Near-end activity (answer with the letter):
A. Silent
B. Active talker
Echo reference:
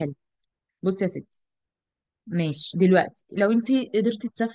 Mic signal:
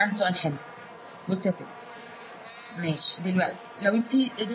A